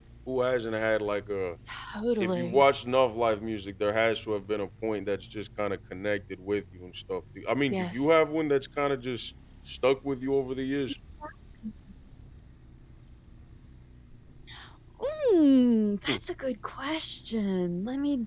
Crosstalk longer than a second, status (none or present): none